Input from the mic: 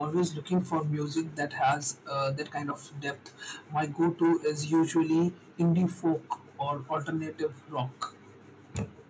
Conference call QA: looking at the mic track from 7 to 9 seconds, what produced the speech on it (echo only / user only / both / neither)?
echo only